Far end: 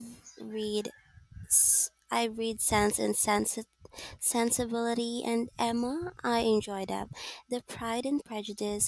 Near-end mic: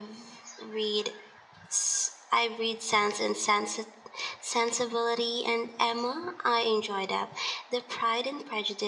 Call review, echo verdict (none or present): present